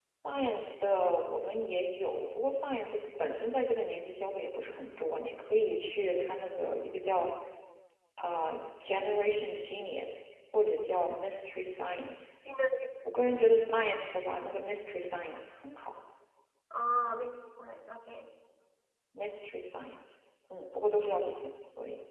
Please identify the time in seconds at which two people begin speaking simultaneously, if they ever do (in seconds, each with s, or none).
none